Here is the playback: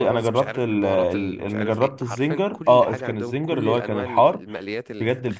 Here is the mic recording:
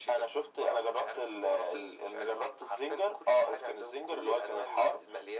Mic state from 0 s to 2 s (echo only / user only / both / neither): echo only